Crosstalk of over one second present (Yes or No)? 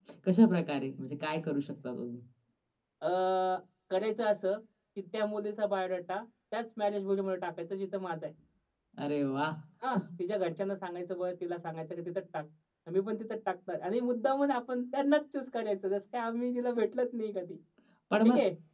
No